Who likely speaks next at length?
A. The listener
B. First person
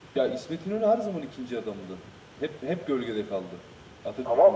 A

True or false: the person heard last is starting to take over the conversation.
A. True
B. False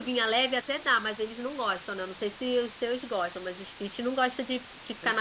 A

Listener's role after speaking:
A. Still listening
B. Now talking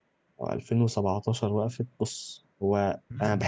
A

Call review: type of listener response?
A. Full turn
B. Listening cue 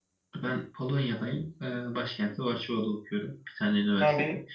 A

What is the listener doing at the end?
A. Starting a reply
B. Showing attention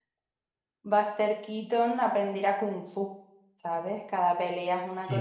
A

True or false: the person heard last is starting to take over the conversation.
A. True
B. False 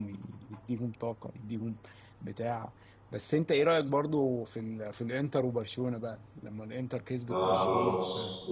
A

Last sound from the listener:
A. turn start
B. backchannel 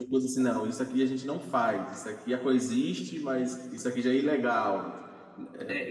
A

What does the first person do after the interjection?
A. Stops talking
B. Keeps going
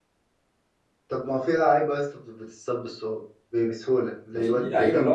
A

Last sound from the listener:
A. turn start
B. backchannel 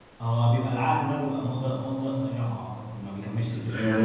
A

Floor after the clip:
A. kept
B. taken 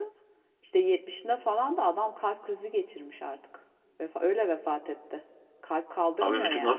B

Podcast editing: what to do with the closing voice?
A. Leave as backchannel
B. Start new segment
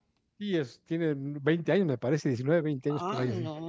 B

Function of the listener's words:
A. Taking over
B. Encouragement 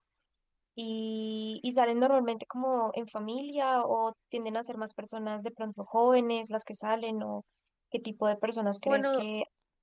B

